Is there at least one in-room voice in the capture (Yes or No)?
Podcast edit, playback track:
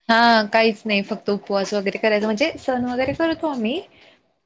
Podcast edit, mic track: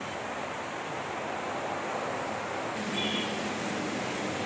No